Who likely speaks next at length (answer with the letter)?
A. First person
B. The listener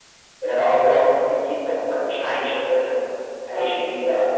B